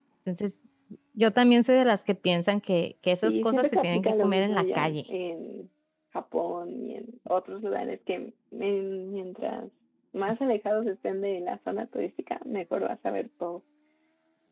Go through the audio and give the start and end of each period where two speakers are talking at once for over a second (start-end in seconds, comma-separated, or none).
3.2-5.0